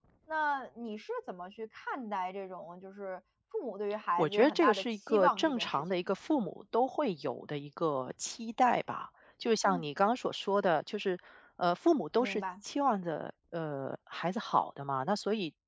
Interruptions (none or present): present